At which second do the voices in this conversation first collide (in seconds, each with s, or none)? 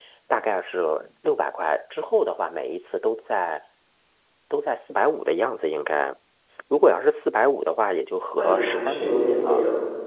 8.3 s